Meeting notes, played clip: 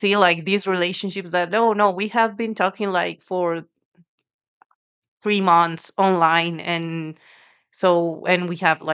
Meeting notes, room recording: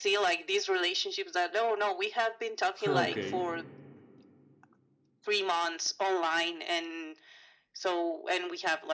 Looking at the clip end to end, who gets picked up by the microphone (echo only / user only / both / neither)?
both